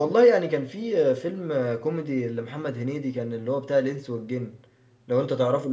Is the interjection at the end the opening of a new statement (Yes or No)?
No